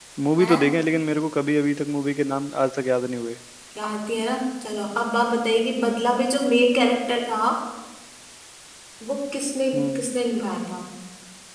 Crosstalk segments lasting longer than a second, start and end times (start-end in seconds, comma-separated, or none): none